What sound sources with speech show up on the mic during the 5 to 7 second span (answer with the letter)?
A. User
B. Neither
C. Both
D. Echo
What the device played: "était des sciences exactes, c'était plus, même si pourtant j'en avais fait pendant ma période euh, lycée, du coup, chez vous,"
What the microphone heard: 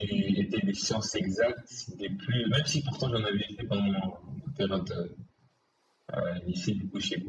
D